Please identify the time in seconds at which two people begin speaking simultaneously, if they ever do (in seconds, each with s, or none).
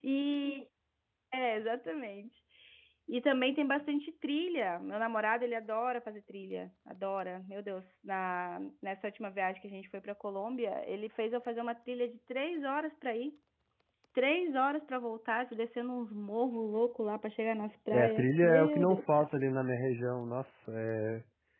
17.9 s